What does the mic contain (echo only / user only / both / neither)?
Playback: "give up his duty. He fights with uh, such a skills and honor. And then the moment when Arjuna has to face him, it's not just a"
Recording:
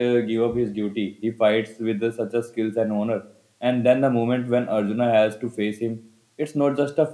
echo only